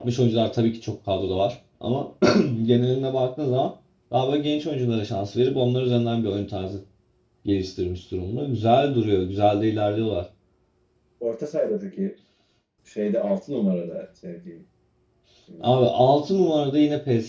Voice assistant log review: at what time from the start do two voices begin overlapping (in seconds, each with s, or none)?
none